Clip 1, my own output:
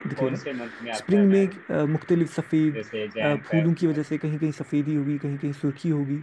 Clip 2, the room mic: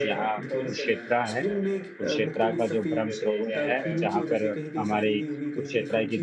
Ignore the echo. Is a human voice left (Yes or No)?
Yes